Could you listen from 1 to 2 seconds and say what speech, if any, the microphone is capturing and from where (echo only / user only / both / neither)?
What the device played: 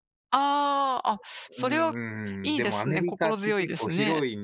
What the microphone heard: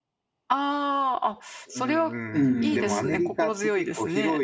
echo only